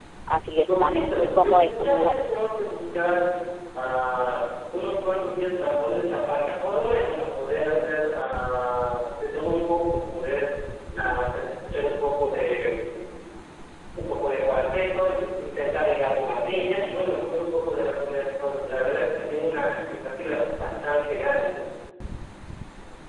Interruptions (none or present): present